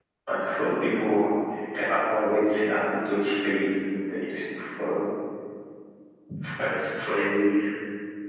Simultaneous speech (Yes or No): No